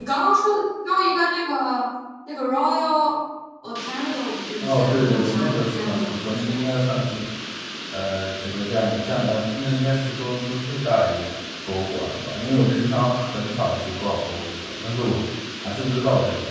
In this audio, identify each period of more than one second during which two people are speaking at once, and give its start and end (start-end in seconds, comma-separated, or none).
4.6-6.7